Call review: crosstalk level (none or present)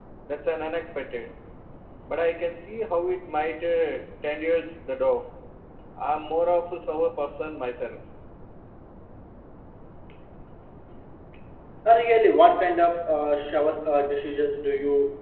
none